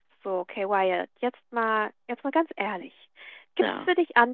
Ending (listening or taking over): listening